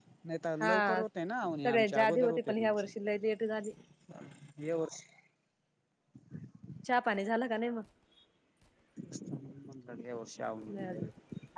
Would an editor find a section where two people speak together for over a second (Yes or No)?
Yes